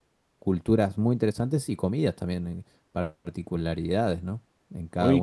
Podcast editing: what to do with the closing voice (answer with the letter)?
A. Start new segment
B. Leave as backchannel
A